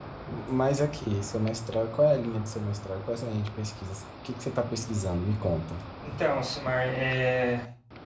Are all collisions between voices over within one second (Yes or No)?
Yes